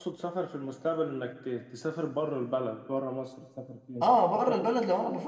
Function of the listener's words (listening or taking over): taking over